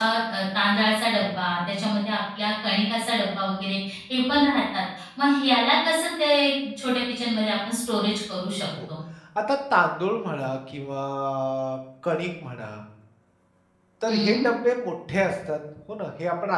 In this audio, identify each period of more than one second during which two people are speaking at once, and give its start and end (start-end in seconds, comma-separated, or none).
none